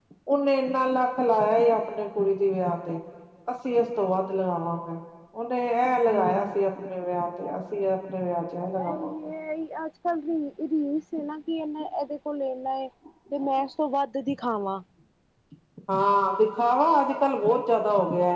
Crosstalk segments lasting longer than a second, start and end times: none

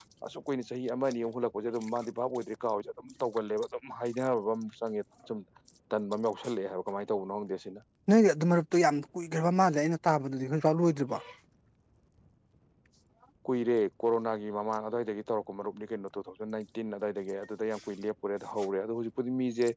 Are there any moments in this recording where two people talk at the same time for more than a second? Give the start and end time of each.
none

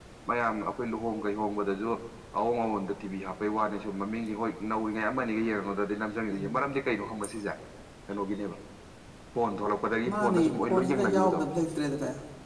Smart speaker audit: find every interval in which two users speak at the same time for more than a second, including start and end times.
10.1-11.4

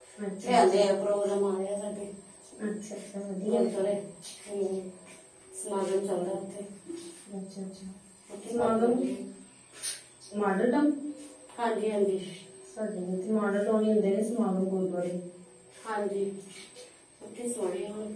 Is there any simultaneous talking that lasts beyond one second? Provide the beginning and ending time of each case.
none

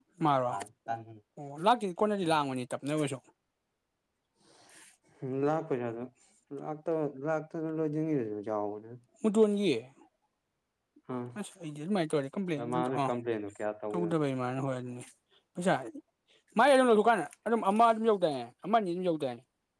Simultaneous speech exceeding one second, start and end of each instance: none

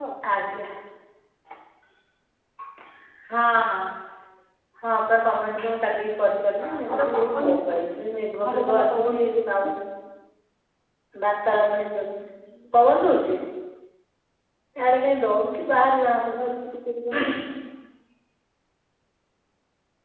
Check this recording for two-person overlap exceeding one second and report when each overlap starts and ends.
6.4-8.0, 8.4-9.7

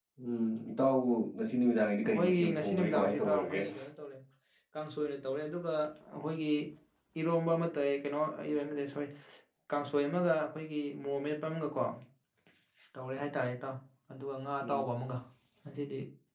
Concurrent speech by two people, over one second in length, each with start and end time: 2.1-3.6

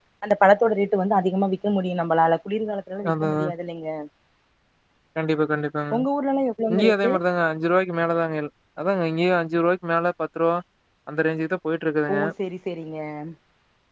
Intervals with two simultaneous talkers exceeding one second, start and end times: none

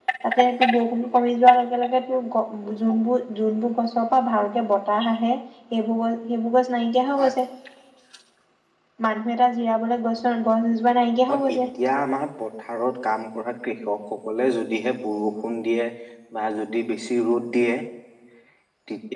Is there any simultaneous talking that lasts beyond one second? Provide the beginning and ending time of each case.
none

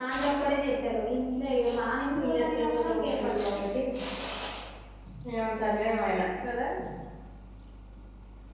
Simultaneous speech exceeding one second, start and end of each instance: 2.2-3.6

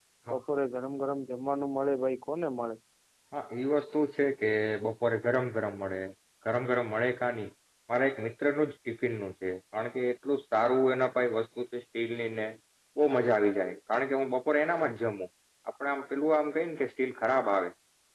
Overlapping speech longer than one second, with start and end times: none

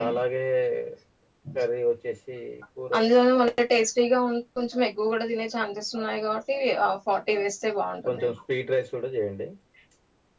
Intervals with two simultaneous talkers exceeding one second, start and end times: none

